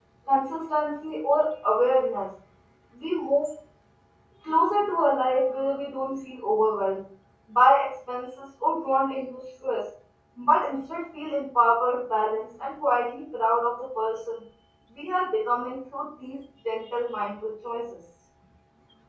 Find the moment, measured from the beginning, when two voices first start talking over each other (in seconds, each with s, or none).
none